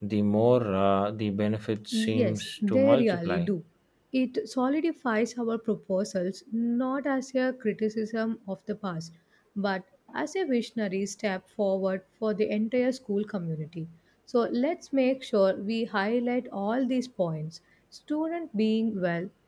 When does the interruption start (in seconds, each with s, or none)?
1.9 s